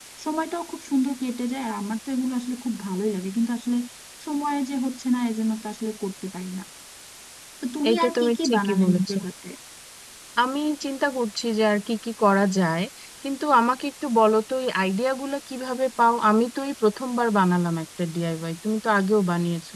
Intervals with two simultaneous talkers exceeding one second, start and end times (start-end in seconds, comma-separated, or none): 7.9-9.2